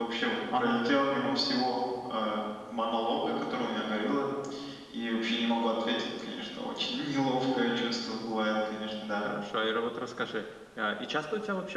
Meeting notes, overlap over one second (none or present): none